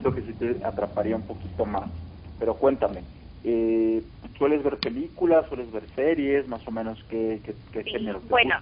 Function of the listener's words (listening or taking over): taking over